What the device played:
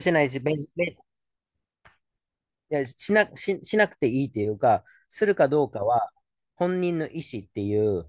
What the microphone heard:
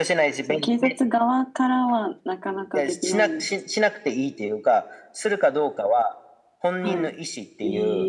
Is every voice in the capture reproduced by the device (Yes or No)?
No